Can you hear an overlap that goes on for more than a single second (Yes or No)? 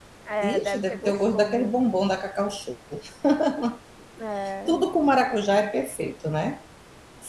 Yes